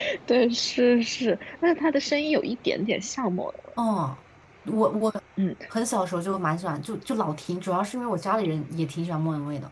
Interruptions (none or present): none